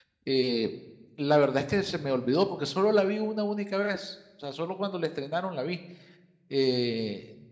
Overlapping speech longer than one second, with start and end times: none

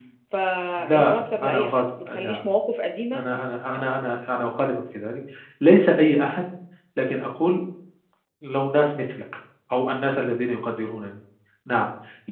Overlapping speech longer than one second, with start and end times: 0.8-2.4

